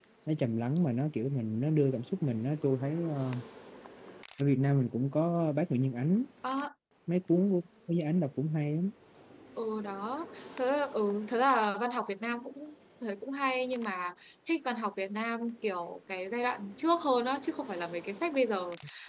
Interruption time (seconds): none

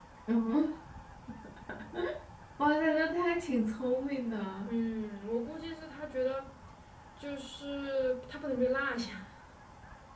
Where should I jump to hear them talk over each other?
none

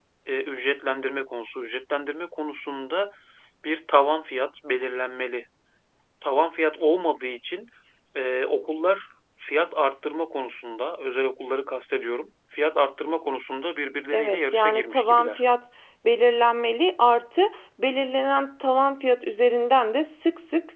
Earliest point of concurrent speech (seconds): 14.1 s

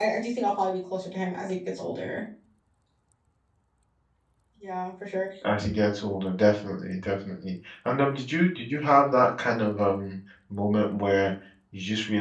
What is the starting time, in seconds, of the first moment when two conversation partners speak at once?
none

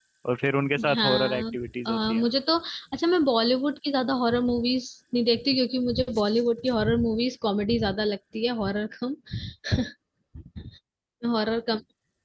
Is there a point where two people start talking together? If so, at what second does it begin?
0.9 s

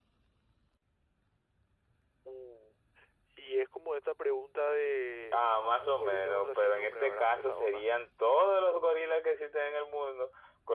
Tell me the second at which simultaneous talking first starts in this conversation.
5.8 s

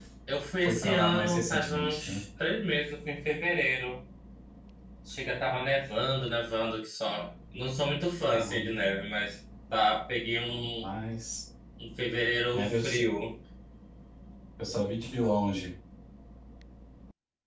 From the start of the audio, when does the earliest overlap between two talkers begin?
0.6 s

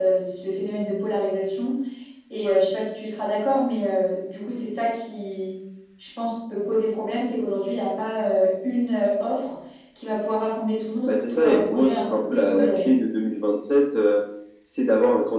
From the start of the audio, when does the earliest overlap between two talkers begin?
11.1 s

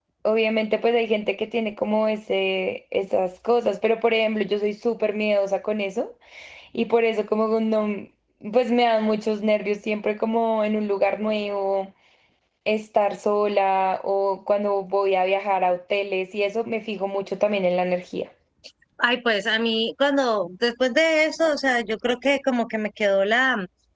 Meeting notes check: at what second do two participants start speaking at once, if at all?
none

